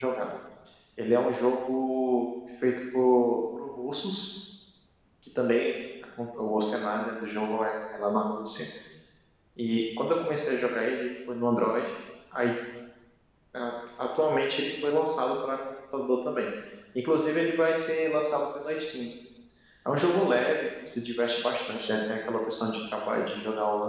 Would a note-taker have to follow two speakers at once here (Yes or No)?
No